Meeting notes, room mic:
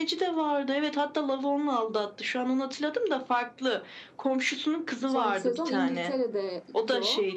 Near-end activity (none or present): present